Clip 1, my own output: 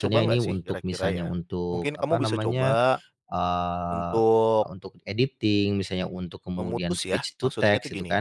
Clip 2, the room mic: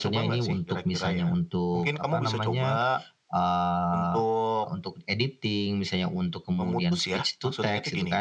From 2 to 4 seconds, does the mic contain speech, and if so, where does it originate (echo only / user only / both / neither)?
echo only